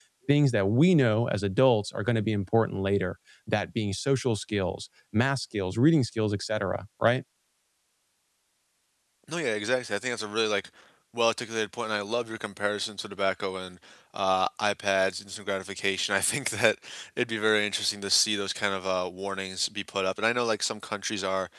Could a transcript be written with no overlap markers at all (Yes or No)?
Yes